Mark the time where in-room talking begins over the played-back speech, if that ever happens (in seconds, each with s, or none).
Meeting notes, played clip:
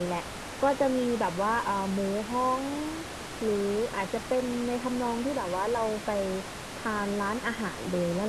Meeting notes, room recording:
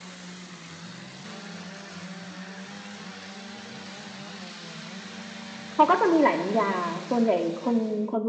5.7 s